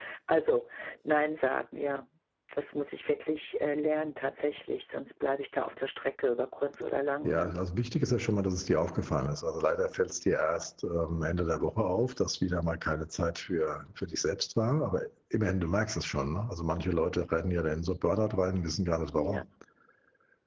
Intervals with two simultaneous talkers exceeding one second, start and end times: none

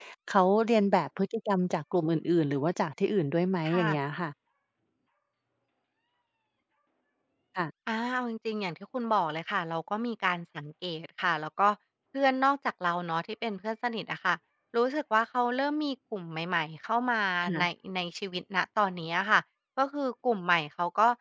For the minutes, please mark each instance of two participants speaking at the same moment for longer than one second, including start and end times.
none

